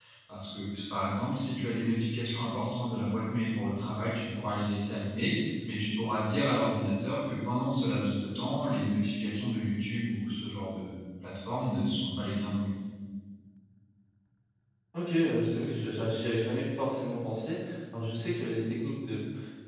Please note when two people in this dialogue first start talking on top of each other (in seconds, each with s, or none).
none